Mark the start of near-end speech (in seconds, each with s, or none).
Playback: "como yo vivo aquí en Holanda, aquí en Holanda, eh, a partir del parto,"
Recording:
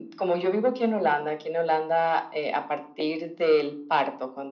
none